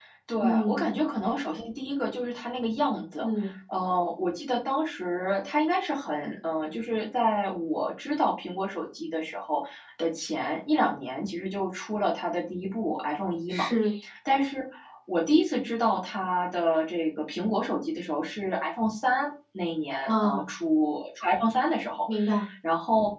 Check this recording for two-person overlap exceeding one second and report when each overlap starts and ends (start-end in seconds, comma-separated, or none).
none